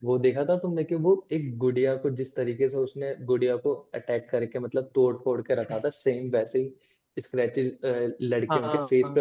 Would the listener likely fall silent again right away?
No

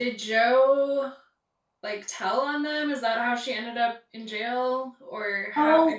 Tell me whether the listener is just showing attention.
No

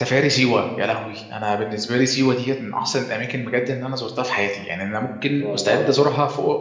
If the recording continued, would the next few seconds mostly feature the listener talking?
No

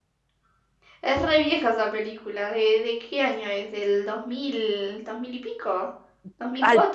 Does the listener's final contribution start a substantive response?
Yes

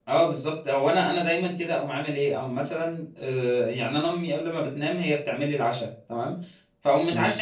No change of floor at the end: Yes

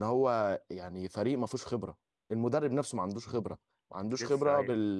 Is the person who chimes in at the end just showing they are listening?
Yes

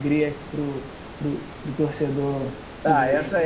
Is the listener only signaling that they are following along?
No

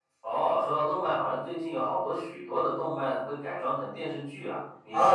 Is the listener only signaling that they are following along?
No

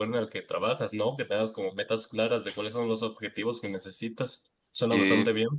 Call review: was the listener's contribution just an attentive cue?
No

